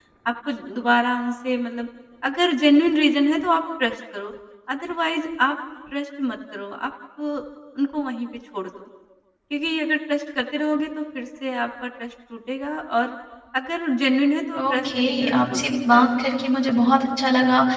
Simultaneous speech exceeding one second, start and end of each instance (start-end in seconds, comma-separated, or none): 14.6-16.1